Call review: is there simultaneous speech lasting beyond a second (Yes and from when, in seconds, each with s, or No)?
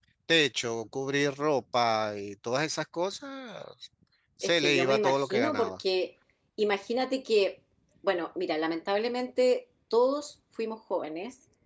Yes, from 4.4 s